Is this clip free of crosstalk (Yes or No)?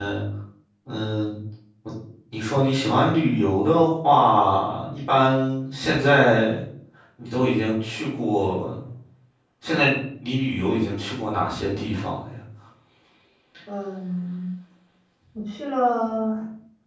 Yes